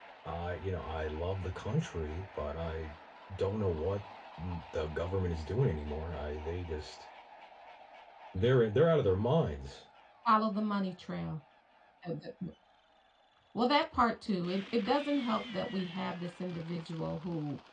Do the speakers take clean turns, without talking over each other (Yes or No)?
Yes